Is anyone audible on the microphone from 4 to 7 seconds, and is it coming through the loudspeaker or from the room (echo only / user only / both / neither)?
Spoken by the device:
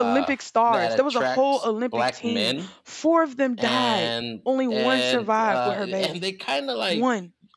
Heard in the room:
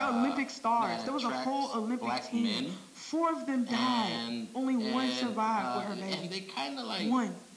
echo only